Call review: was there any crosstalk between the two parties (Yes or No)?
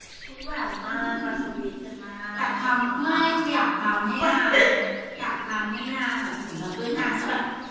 Yes